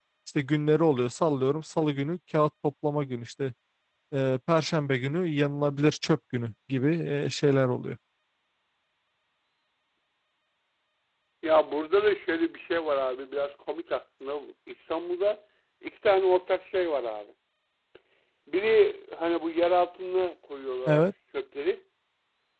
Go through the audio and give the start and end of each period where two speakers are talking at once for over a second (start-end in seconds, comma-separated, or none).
none